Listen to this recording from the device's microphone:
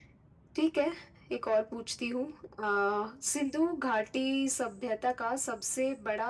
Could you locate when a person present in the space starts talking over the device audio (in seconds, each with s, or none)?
none